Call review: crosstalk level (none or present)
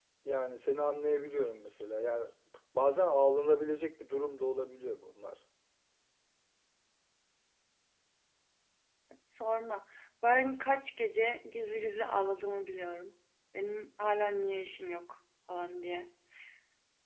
none